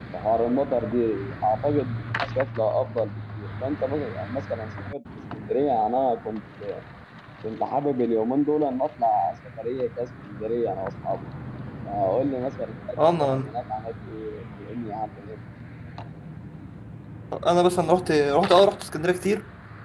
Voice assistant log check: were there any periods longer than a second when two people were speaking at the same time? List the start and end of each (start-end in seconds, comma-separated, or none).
none